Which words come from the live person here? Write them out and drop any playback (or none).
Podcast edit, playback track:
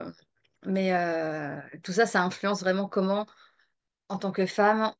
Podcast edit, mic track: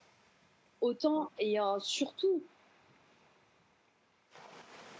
autant et euh, surtout